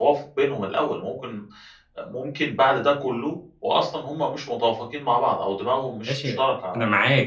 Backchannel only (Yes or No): No